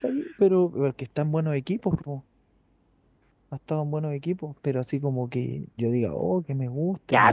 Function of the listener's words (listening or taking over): taking over